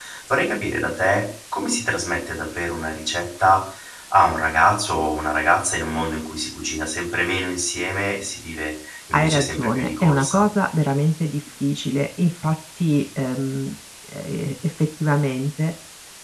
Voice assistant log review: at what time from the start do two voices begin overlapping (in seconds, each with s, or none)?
9.1 s